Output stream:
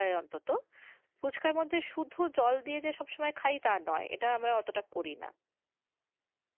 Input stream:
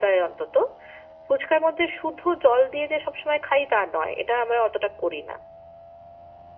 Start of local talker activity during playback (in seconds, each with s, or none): none